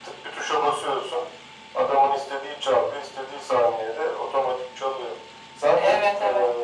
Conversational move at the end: listening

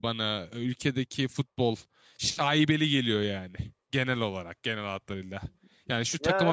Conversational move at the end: listening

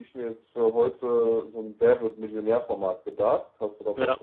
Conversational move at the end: taking over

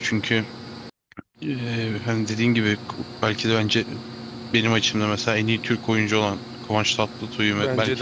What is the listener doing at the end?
taking over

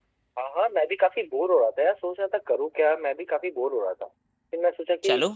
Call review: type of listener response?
listening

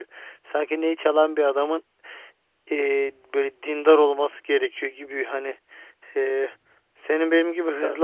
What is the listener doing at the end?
listening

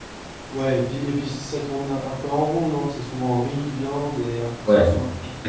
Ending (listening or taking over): taking over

